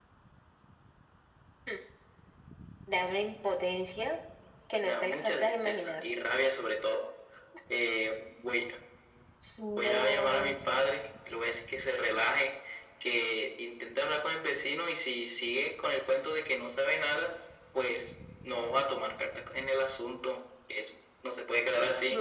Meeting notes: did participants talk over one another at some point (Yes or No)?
Yes